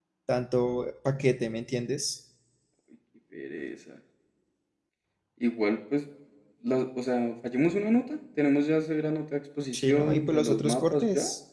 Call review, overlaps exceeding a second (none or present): present